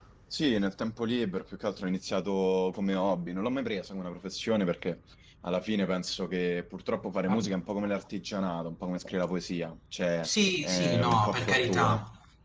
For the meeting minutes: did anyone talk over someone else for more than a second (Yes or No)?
Yes